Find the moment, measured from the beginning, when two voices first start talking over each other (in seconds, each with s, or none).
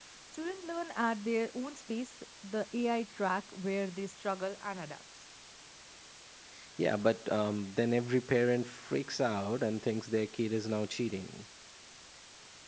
none